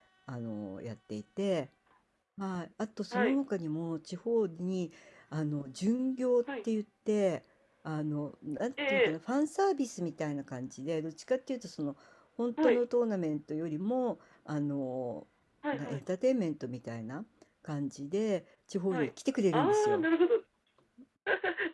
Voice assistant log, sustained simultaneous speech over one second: none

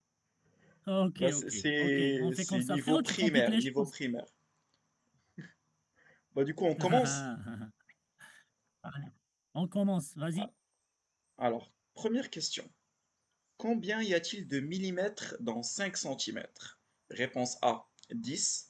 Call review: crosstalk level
present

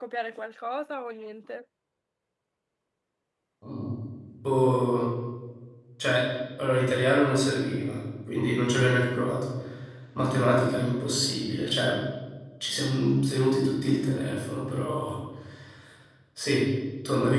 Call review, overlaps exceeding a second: none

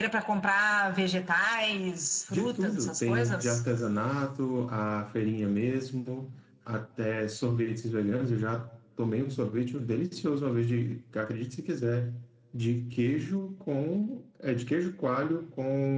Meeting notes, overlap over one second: present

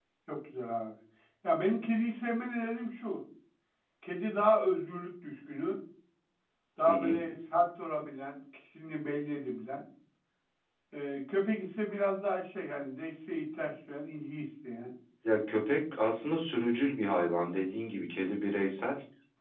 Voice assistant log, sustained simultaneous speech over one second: none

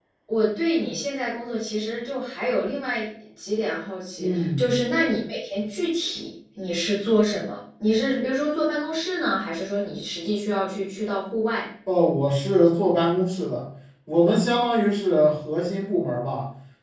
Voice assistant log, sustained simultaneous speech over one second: none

